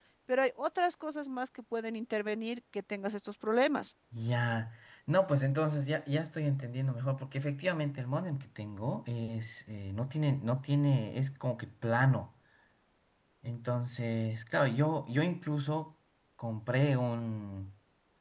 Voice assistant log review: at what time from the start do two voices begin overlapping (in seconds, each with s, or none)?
none